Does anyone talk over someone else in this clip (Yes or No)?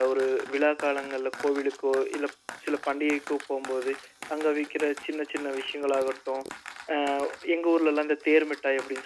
No